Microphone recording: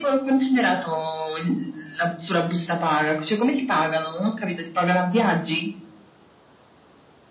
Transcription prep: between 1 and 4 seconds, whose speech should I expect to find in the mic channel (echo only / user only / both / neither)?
echo only